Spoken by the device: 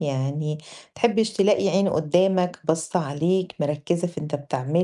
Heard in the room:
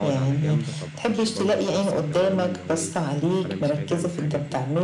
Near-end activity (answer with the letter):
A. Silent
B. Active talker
B